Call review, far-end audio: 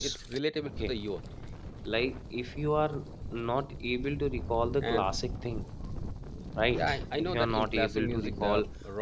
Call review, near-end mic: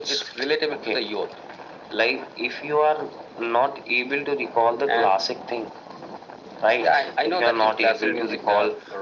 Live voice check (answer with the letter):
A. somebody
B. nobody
B